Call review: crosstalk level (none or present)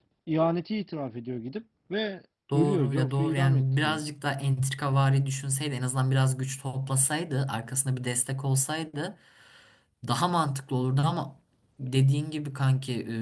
present